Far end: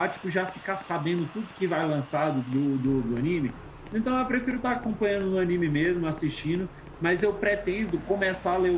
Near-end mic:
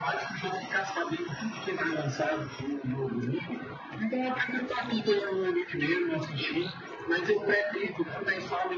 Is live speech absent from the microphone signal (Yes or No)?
Yes